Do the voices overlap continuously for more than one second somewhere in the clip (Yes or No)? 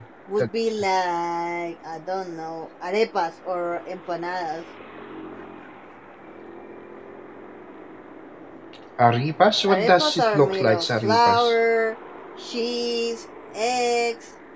Yes